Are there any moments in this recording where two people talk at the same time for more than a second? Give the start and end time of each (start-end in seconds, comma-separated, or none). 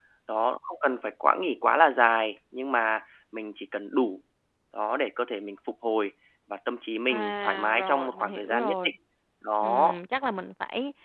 7.1-8.9